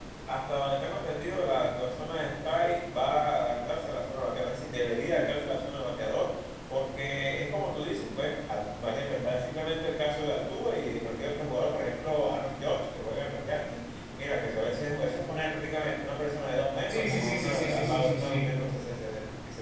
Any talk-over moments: Yes, from 16.9 s

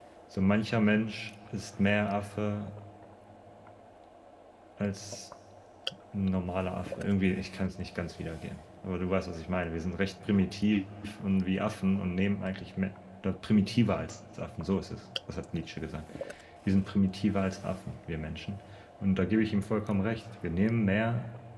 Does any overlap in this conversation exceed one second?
No

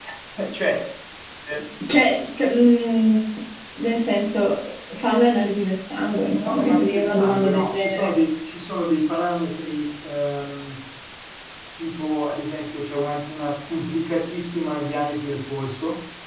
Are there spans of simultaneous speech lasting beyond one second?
Yes, from 6.4 s

